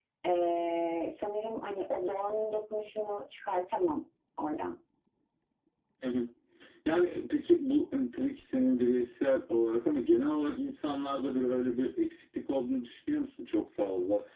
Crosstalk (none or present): none